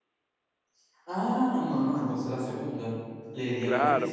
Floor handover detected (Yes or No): Yes